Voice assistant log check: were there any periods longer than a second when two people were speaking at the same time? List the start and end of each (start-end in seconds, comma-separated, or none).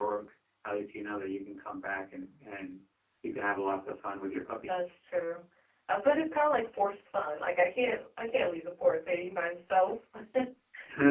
none